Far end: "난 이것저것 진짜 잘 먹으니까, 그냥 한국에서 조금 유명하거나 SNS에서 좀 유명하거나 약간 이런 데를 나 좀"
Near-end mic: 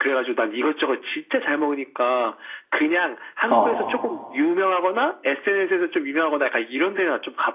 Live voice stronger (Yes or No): Yes